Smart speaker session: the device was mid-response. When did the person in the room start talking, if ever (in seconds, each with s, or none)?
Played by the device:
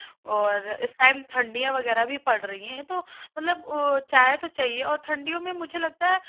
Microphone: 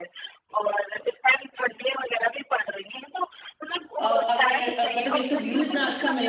4.0 s